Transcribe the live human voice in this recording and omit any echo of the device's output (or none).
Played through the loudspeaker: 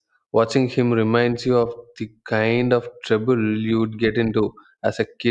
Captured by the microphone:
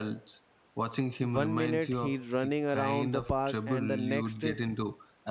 One minute he's running around the park and the next